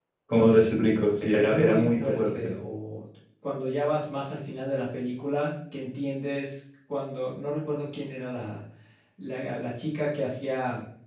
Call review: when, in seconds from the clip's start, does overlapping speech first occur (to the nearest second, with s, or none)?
1 s